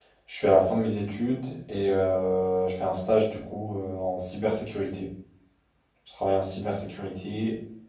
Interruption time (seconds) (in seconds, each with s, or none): none